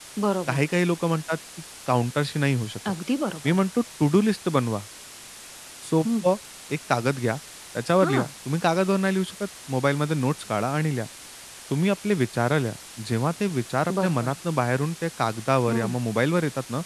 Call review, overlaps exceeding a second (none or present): none